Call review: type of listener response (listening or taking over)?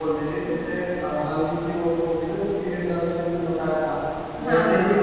listening